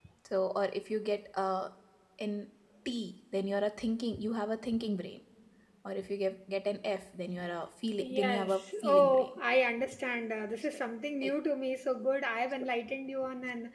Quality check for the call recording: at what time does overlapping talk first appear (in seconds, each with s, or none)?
8.0 s